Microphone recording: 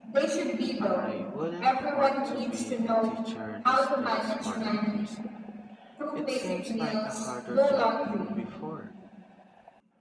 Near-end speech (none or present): present